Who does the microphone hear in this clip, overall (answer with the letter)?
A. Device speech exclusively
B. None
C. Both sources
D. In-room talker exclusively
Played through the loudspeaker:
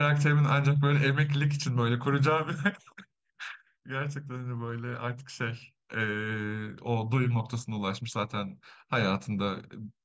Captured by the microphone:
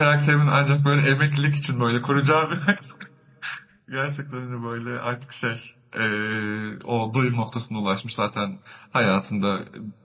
A